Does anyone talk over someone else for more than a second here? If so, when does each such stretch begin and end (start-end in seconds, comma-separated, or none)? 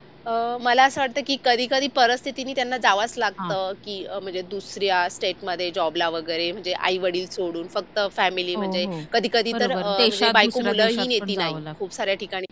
9.5-11.6